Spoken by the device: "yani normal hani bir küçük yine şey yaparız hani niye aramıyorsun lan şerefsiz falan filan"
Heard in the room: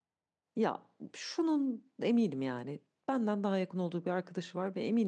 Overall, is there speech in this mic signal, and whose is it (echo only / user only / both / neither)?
user only